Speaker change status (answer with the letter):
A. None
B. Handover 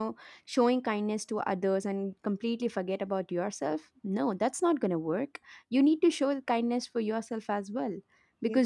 A